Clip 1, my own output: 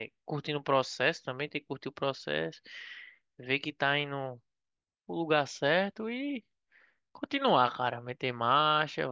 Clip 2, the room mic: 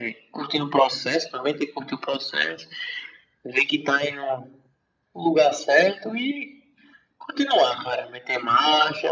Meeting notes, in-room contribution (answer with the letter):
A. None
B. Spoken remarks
A